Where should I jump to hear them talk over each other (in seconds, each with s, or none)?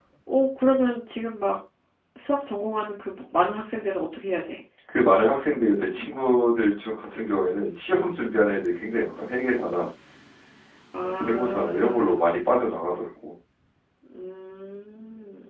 10.9 s